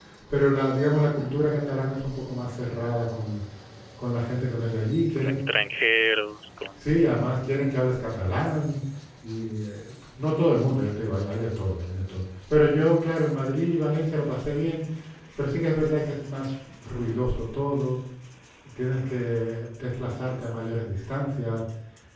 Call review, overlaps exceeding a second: none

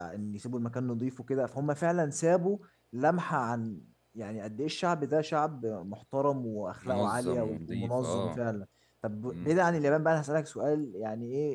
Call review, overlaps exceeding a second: present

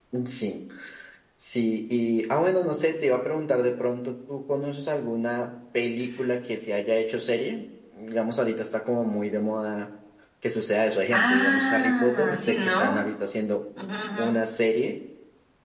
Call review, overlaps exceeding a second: present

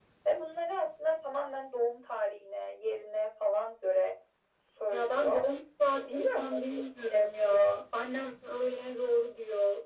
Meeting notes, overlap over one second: present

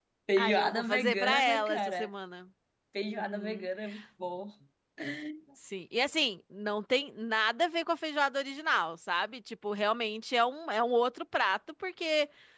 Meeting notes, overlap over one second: present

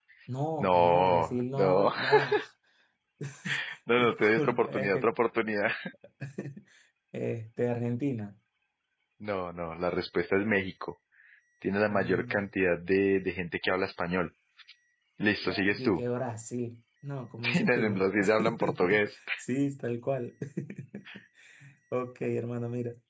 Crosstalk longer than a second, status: present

